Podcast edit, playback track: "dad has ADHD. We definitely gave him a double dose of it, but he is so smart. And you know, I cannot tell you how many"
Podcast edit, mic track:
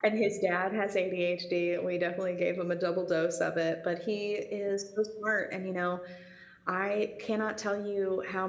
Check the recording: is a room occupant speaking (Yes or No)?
No